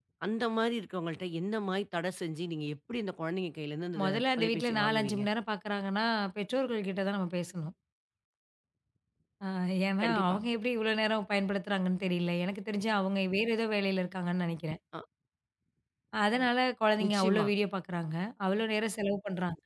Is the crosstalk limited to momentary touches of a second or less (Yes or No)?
No